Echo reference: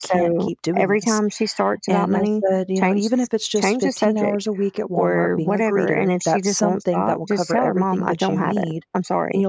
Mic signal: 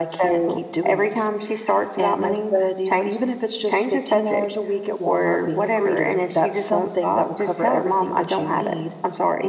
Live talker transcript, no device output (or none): none